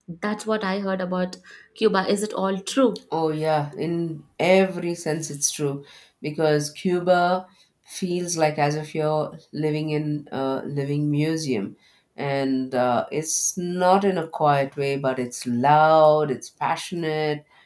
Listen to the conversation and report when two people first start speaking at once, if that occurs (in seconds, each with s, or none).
none